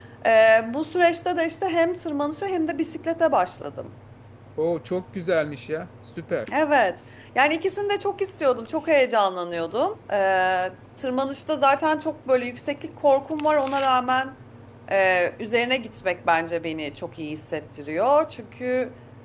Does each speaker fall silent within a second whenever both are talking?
Yes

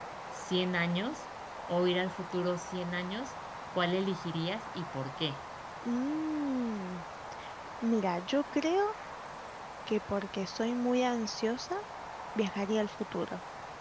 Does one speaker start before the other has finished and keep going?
No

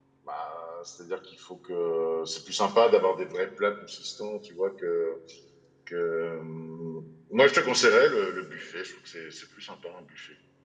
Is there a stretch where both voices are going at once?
No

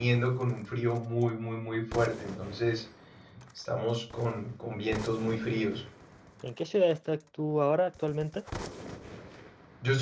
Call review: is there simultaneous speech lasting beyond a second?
No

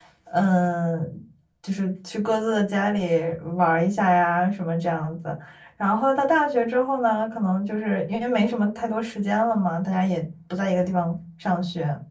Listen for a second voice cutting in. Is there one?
No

